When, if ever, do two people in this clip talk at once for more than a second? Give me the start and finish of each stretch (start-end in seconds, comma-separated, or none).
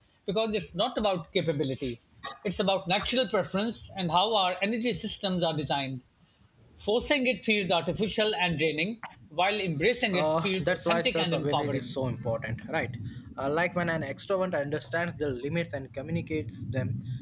10.1-11.9